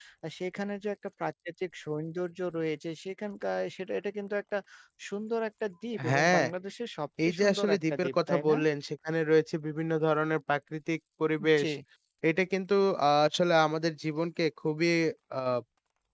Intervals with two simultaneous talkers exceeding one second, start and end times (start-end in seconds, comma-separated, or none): 7.2-8.6